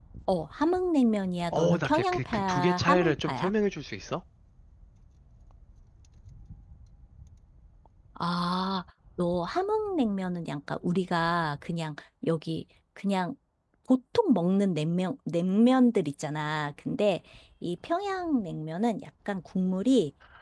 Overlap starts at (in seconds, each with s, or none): 1.5 s